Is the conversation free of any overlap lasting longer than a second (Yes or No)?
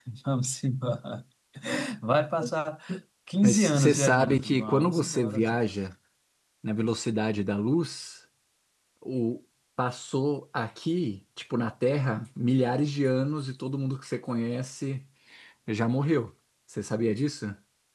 No